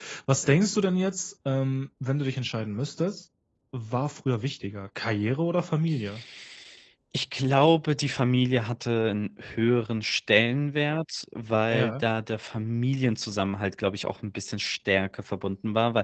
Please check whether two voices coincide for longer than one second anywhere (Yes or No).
No